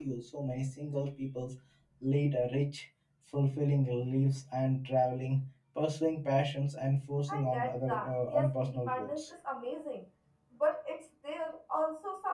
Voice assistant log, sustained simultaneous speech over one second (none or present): present